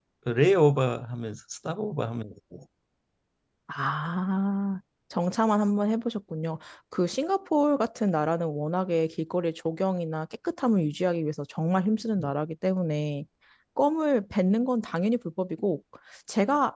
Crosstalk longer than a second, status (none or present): none